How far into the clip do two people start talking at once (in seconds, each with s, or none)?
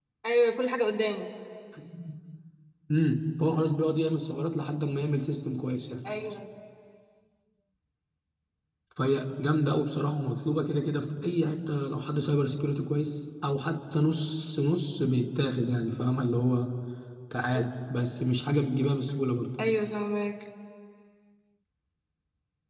none